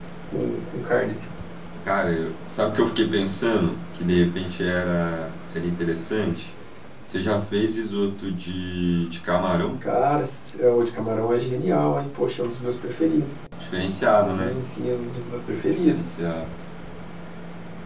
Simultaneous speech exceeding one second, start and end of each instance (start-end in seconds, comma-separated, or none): none